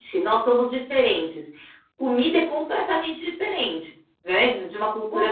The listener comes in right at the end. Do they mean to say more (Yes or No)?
Yes